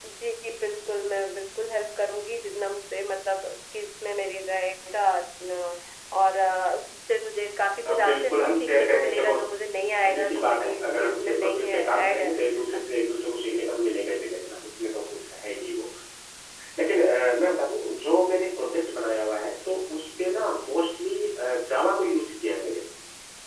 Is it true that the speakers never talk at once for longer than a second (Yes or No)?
No